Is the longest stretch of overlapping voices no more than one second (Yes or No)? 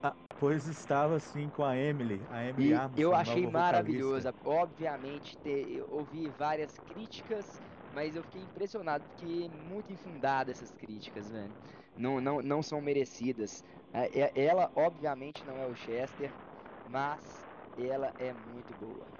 No